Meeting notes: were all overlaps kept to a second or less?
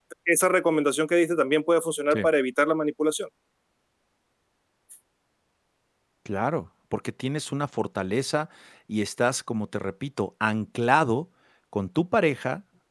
Yes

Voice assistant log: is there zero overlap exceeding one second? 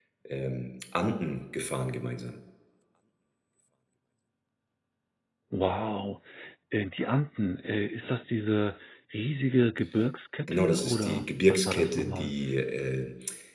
No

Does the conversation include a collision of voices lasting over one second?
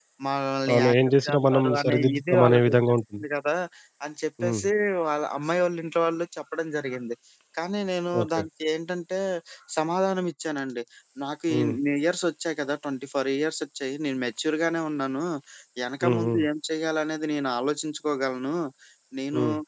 Yes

